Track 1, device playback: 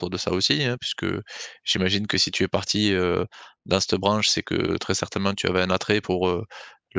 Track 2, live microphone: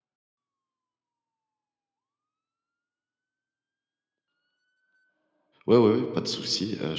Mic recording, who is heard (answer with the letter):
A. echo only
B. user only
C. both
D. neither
B